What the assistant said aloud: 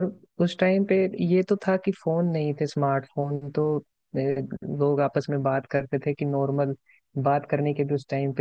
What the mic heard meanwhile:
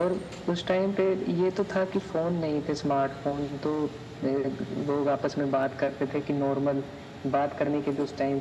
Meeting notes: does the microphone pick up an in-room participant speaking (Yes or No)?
No